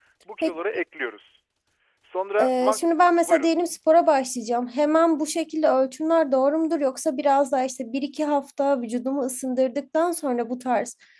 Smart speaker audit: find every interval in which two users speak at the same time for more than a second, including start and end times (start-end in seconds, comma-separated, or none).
none